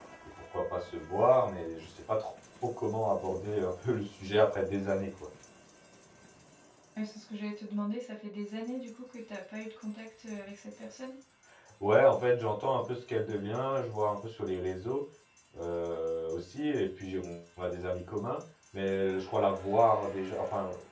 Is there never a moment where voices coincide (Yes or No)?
Yes